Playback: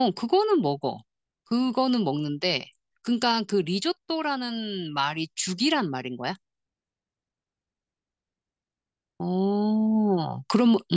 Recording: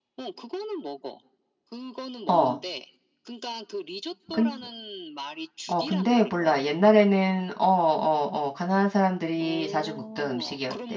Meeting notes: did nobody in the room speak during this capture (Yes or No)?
No